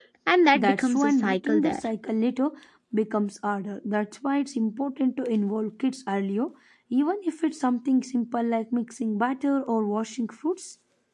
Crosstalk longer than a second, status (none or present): present